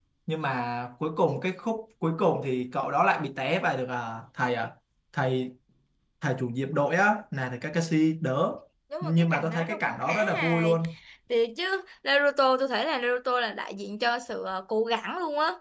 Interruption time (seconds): 9 s

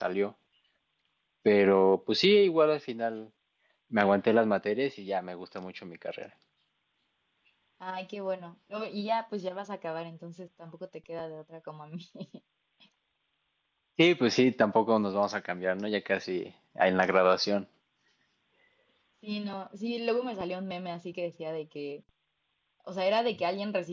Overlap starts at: none

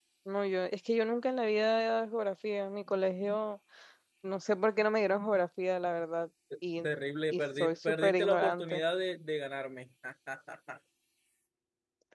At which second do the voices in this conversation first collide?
7 s

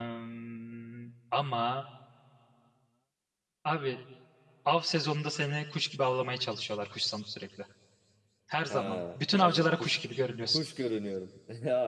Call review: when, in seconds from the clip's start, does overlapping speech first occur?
9 s

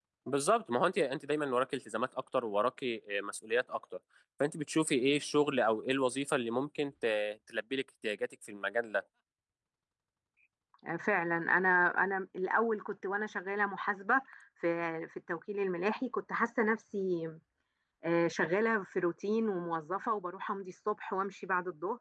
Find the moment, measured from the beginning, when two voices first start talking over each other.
none

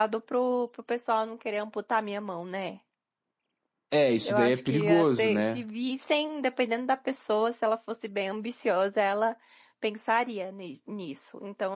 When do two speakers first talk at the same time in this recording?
4 s

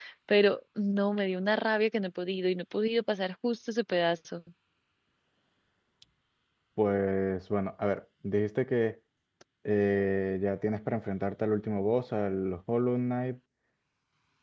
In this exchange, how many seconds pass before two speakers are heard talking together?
none

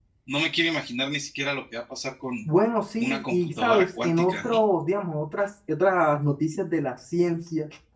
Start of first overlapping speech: 3 s

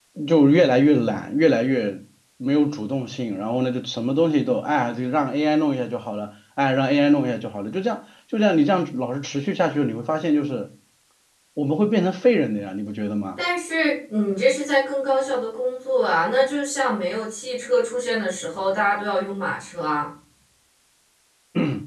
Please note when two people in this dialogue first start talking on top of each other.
none

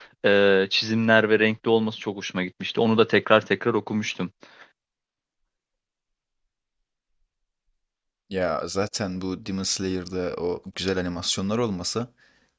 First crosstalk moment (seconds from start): none

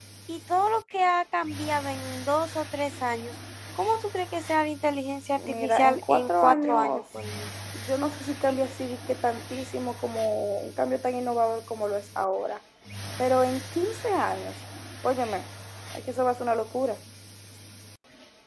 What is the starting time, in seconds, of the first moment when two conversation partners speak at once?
5 s

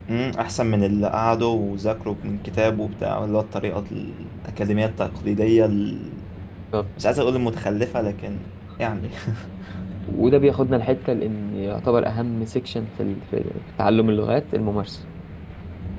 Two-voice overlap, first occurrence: none

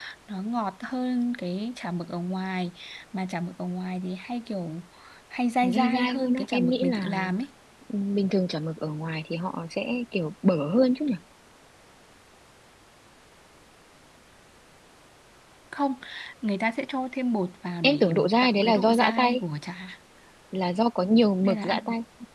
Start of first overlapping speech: 6 s

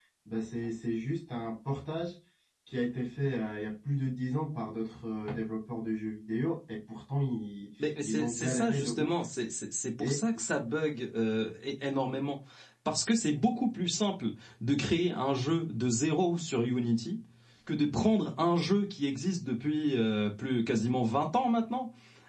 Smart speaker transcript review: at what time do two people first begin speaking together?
8 s

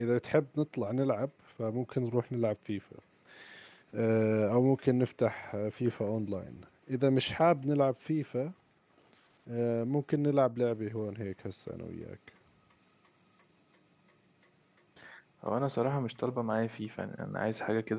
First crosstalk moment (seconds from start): none

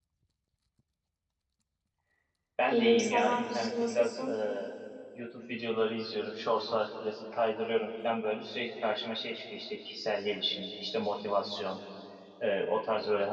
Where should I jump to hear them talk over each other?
3 s

